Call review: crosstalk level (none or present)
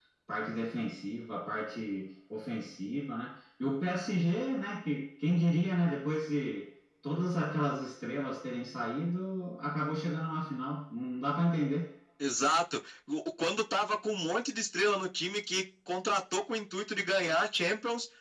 none